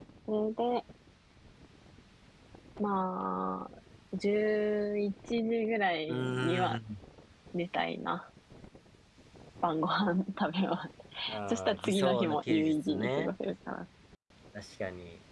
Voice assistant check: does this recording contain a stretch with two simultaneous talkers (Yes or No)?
Yes